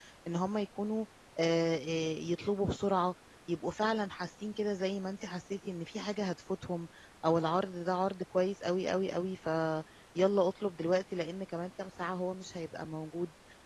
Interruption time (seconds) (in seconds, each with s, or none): none